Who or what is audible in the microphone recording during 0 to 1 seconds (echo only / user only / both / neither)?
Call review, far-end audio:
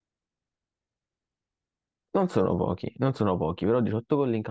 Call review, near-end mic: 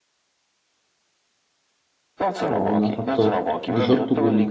neither